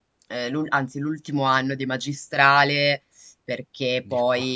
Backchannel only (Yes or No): Yes